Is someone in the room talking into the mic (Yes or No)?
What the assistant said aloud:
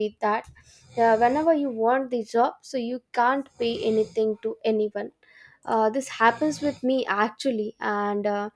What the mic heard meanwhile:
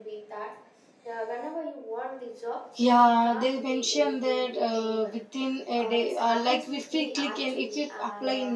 Yes